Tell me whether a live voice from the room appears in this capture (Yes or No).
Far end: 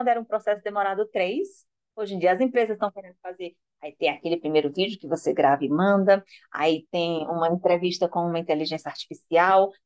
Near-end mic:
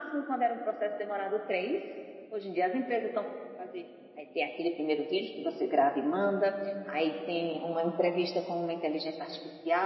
No